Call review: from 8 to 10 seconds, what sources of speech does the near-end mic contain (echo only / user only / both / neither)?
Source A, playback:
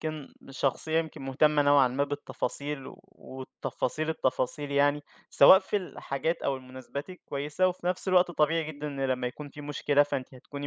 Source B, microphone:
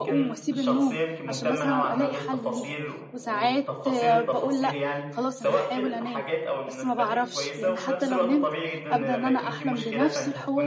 both